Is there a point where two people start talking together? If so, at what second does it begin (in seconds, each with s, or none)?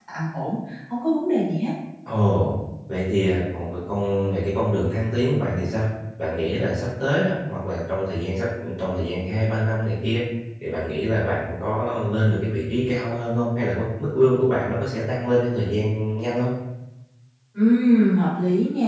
none